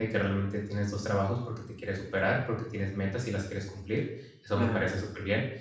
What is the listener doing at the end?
listening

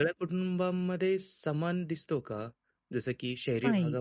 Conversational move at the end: listening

